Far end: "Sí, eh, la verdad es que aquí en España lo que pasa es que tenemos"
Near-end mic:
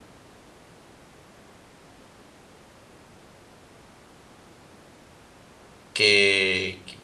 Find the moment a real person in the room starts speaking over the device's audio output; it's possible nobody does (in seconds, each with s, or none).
5.9 s